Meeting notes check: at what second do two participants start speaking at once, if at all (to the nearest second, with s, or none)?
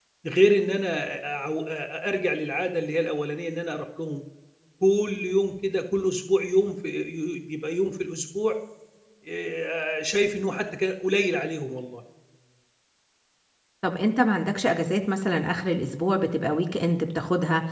none